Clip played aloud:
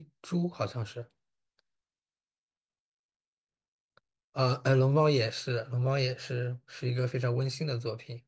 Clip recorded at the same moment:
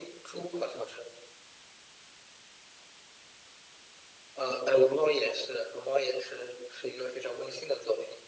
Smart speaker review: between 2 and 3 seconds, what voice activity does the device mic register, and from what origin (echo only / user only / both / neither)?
neither